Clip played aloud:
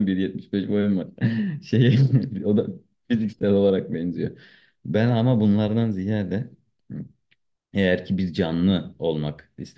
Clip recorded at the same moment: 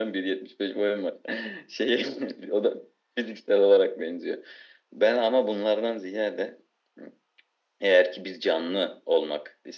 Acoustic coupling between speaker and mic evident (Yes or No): Yes